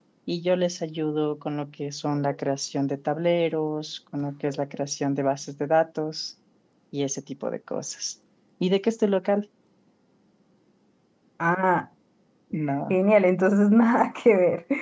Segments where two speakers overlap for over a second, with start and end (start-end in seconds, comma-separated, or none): none